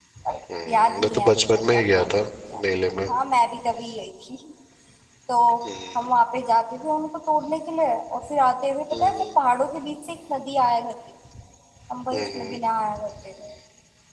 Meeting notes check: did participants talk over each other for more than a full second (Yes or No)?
Yes